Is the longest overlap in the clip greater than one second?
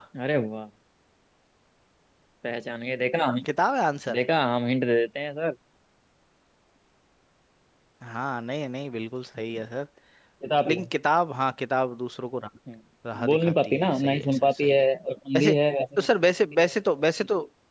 Yes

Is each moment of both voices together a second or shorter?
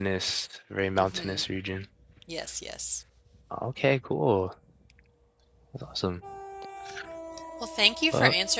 Yes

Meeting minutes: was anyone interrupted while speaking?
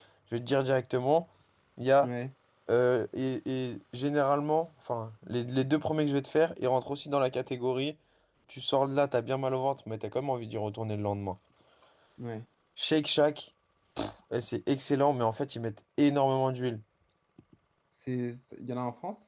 No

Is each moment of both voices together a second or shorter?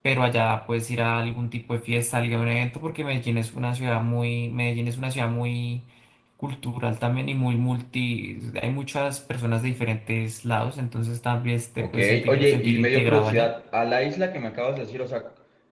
No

